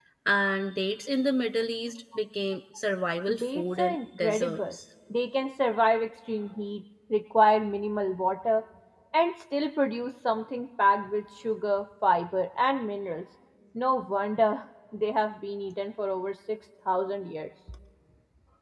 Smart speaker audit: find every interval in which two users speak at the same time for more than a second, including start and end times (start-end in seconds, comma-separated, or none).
3.4-4.7